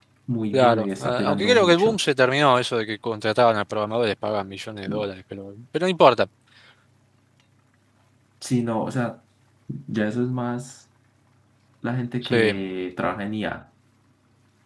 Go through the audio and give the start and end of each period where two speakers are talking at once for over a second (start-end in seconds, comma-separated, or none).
0.5-2.0